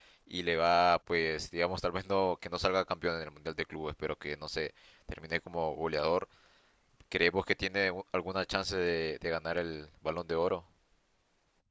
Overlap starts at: none

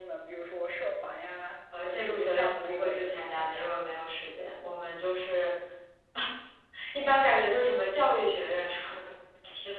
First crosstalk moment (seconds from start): 1.7 s

